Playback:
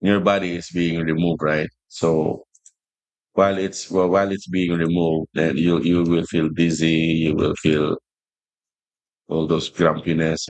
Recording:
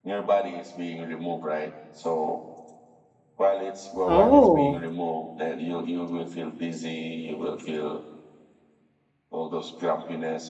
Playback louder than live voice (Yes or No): No